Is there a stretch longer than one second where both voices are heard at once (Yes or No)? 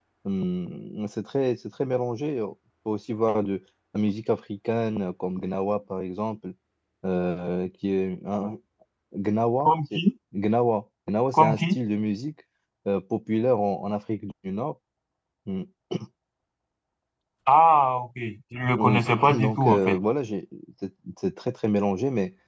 Yes